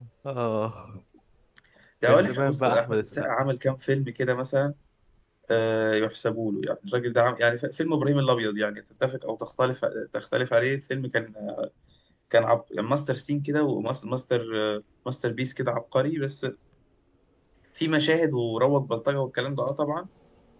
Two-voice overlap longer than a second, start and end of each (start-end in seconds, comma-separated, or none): 2.1-3.3